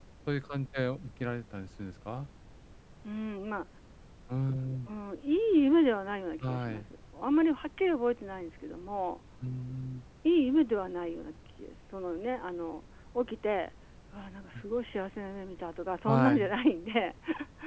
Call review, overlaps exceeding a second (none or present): none